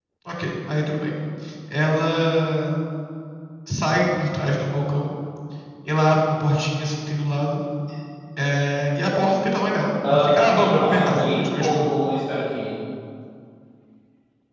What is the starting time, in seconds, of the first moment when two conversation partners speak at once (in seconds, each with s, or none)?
10.0 s